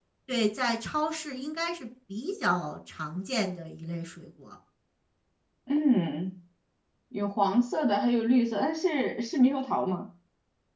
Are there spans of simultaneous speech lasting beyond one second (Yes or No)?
No